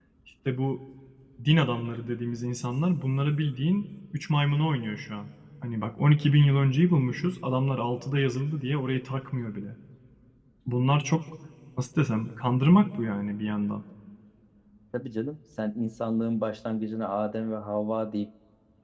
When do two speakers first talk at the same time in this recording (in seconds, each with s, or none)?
none